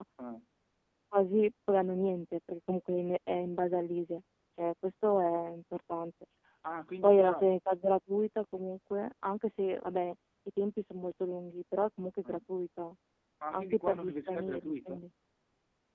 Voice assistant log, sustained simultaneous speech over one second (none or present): present